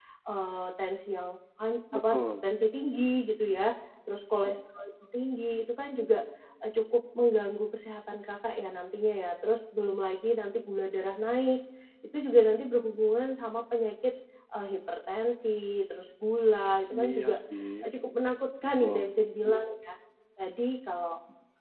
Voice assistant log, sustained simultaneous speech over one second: none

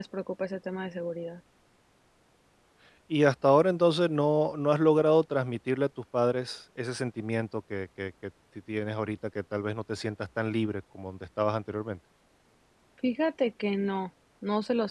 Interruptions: none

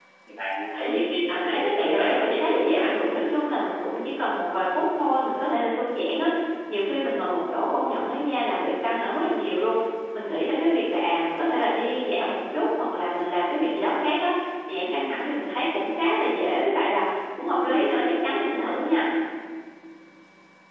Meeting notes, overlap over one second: present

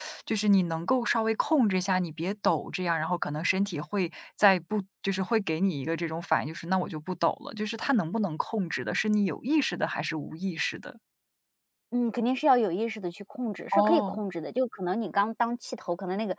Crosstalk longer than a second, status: none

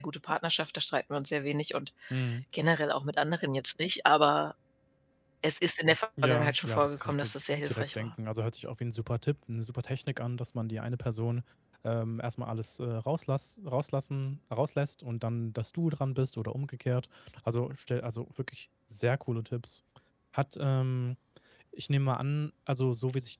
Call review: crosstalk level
present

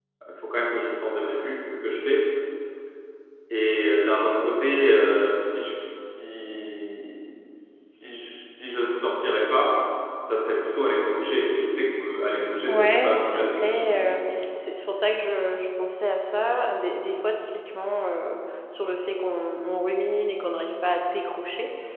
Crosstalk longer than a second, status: present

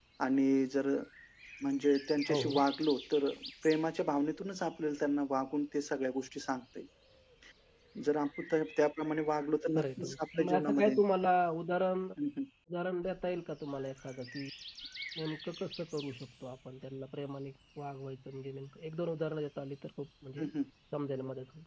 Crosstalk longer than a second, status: present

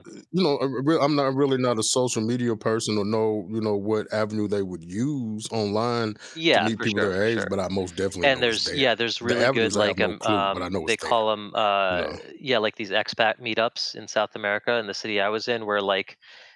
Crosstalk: present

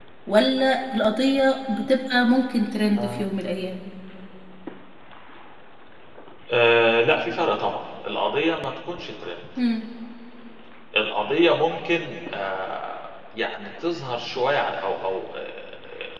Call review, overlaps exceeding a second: none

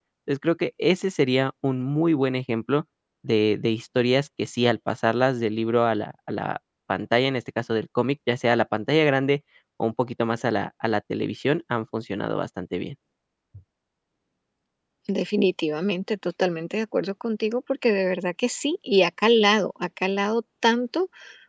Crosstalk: none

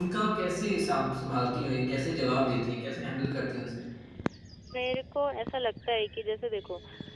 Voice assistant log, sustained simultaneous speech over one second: none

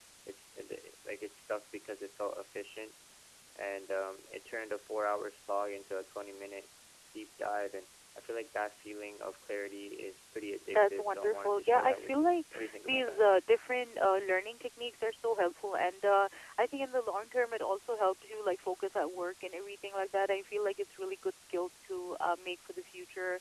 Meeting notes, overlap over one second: present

